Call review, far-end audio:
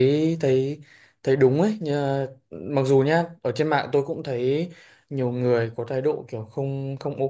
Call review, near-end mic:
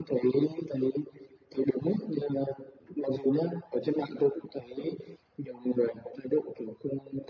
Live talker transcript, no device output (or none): none